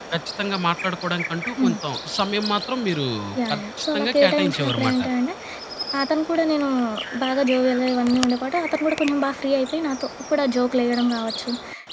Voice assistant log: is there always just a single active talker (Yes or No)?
No